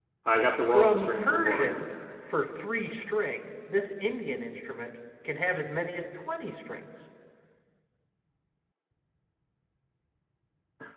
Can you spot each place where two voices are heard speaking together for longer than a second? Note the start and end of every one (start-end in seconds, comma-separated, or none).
0.7-1.9